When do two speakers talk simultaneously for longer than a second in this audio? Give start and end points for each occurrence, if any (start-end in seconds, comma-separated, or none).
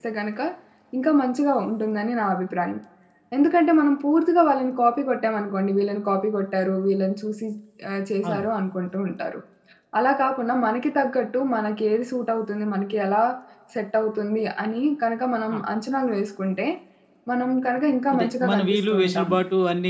18.1-19.4